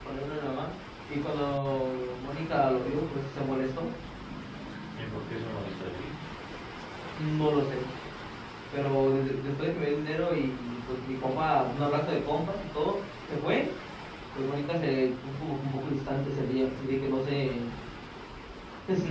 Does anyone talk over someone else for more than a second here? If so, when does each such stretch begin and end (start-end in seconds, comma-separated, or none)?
none